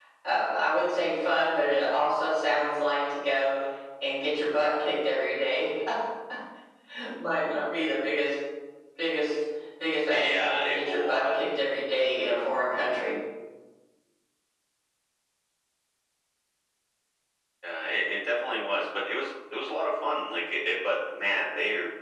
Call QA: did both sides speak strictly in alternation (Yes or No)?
No